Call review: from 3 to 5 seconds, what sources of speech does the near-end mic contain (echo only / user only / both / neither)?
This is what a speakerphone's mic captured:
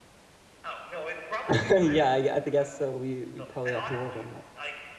both